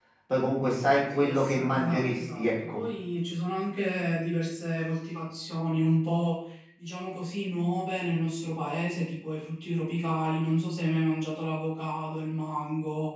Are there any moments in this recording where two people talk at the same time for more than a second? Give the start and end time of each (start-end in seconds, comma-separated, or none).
0.8-2.8